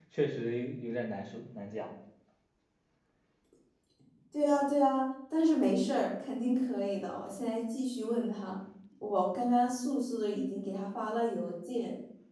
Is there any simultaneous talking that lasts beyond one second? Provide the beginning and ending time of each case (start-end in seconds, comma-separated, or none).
none